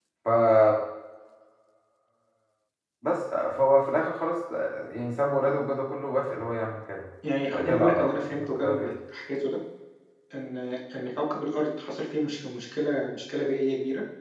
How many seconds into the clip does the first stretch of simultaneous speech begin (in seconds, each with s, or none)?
7.5 s